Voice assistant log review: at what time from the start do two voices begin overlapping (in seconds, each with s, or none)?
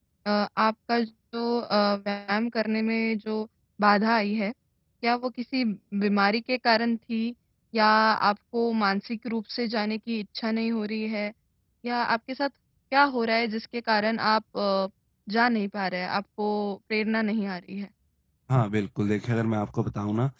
none